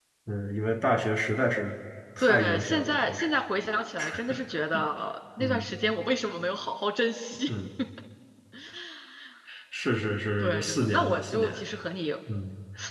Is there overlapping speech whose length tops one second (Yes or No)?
Yes